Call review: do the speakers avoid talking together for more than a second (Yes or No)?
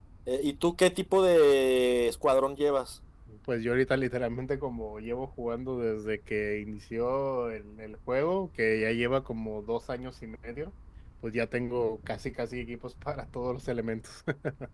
Yes